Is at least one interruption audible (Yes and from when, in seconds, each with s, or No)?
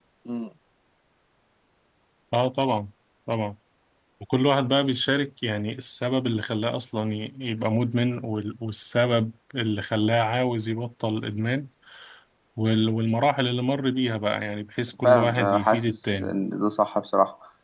Yes, from 15.0 s